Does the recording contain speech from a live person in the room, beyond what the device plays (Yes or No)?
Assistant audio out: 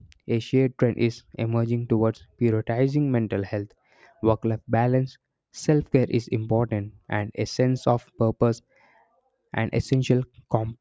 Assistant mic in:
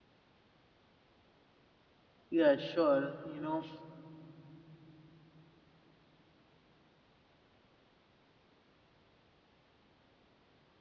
Yes